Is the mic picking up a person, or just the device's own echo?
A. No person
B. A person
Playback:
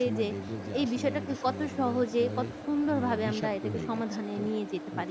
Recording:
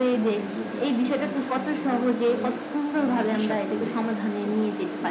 A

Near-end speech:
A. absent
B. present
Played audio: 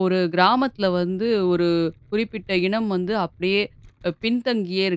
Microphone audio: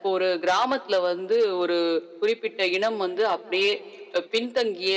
A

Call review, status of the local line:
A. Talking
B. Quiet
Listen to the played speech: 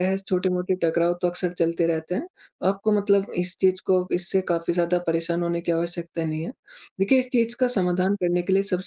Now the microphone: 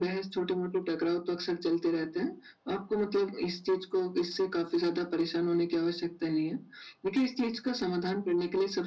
B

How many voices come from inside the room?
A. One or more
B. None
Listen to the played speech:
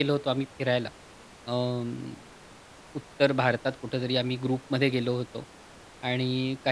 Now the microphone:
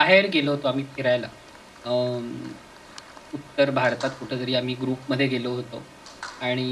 B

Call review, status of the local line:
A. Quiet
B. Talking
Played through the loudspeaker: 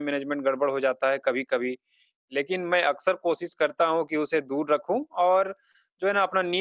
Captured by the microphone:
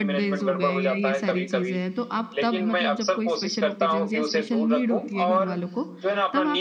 B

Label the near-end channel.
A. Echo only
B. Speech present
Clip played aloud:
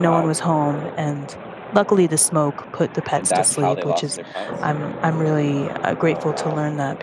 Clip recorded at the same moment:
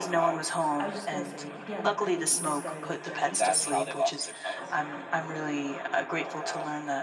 B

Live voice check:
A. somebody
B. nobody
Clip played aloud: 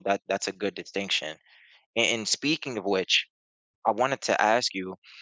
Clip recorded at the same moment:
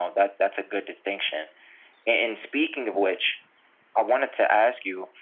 B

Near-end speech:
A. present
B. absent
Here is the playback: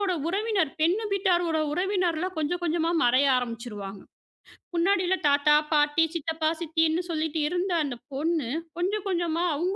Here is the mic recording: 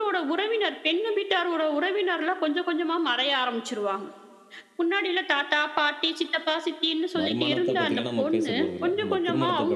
A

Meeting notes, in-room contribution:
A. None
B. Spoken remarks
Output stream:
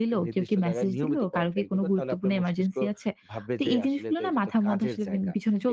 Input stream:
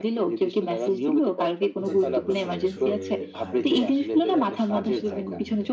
B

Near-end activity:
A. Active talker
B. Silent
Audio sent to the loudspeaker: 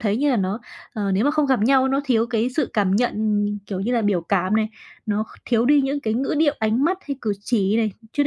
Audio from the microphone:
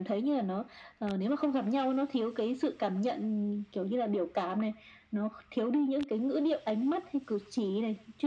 B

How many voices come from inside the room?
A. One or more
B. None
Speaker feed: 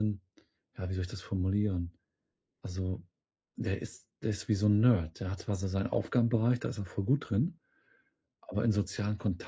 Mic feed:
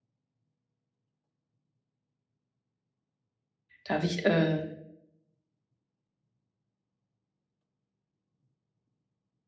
A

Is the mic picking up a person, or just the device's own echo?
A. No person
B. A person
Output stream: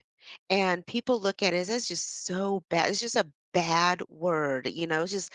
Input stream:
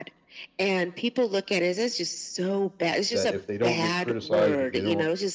B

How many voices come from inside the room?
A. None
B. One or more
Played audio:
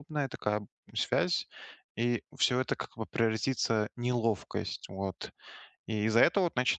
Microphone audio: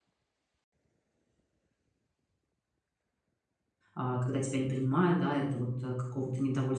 B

